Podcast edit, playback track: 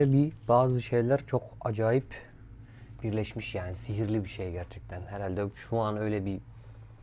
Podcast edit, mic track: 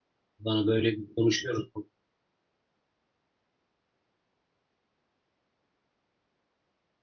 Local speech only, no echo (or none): Bana böyle bir konuşuyoruz.